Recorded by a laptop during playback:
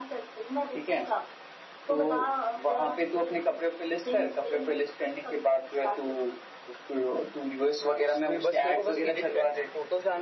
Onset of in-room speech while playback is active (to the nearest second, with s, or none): 8 s